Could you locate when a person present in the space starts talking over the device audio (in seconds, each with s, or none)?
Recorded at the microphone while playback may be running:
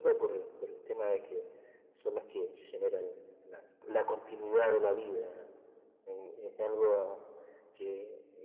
none